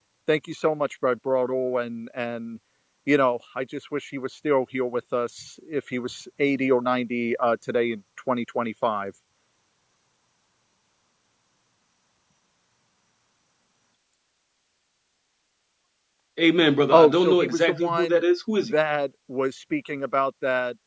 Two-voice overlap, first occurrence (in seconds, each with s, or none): 16.9 s